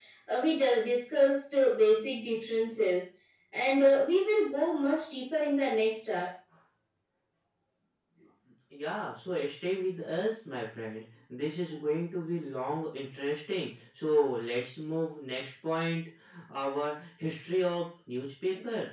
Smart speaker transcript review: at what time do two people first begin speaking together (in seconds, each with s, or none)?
none